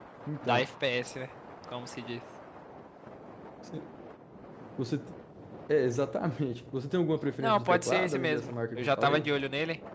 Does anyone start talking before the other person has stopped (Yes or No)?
Yes